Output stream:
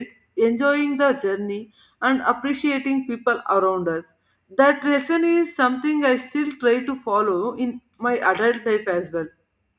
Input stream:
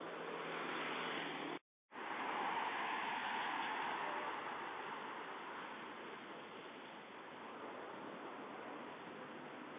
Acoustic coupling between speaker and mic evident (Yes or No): No